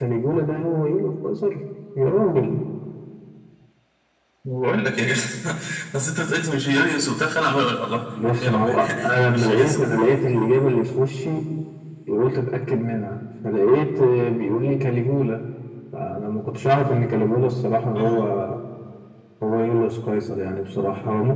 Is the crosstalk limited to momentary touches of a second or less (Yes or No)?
No